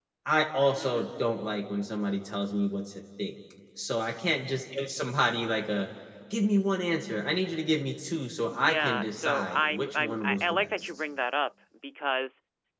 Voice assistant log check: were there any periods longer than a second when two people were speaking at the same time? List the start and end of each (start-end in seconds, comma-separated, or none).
8.5-10.9